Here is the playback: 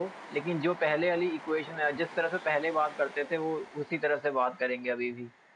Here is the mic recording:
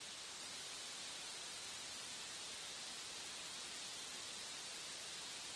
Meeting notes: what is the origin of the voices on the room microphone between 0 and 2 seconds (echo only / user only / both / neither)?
neither